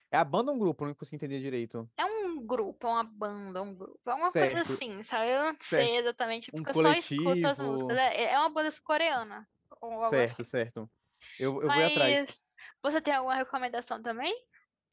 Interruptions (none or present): present